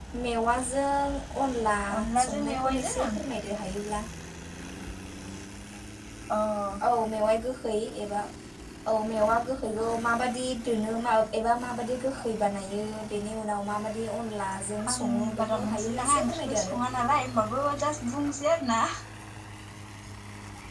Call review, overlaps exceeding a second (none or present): present